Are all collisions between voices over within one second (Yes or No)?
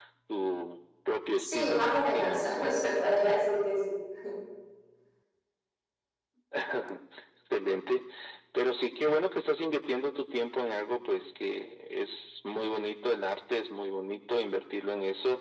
No